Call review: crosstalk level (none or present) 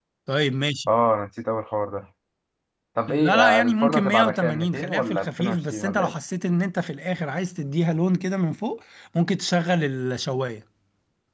present